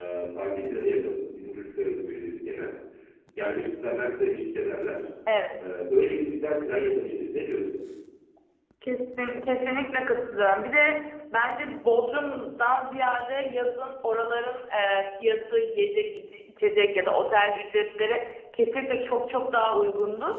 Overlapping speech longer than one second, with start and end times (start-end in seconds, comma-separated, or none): none